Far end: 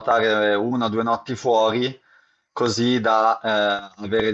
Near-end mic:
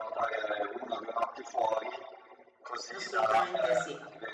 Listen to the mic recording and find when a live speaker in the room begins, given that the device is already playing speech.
2.9 s

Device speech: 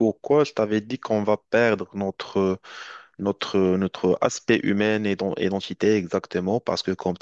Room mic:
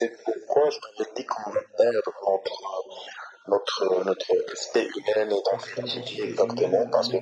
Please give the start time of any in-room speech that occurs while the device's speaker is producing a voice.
5.4 s

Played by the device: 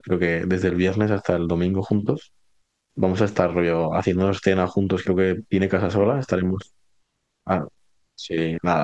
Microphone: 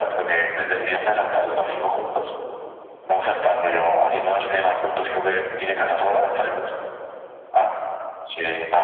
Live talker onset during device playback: none

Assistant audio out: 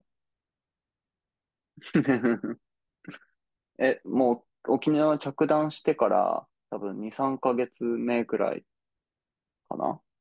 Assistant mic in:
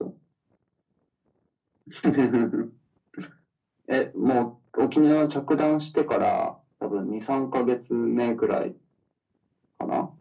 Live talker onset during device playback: none

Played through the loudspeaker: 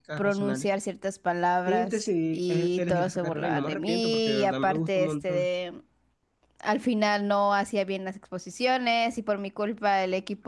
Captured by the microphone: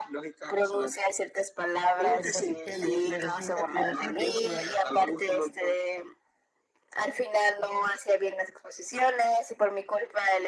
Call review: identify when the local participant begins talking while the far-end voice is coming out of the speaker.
2.1 s

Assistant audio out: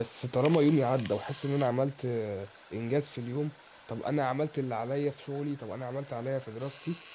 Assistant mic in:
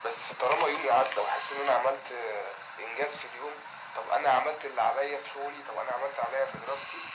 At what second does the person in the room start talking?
none

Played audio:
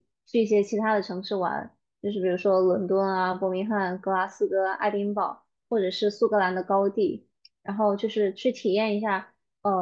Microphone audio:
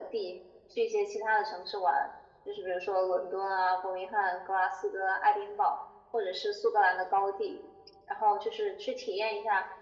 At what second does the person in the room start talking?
none

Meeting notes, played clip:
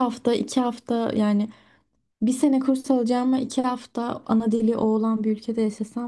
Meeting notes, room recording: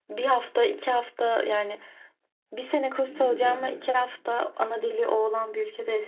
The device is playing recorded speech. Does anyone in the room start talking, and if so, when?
3.0 s

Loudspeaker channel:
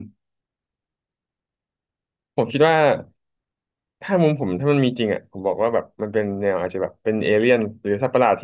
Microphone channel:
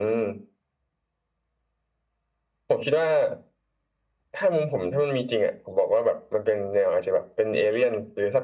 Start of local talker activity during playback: none

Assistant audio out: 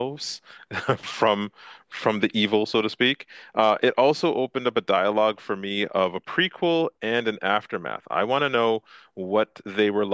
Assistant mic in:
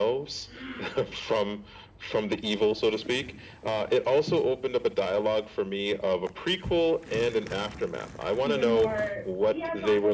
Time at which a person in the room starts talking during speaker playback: 8.4 s

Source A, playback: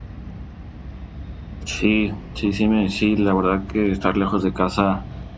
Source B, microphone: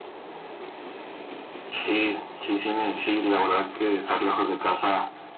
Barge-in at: none

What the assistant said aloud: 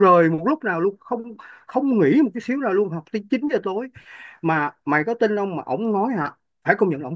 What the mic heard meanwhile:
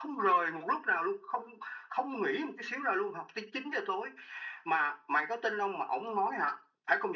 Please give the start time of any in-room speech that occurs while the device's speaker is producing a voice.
none

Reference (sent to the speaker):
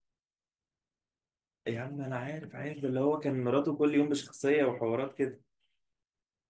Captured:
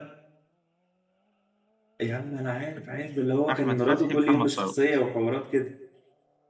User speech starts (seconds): 3.5 s

